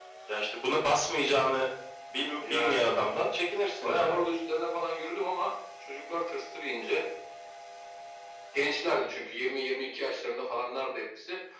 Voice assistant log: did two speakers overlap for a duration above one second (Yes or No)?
No